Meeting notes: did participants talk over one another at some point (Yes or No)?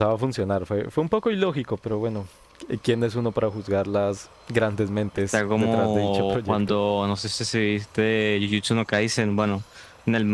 Yes